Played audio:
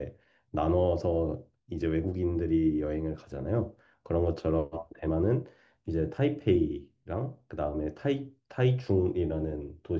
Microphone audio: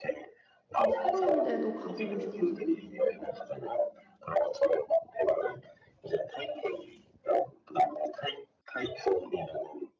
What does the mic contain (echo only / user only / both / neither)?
both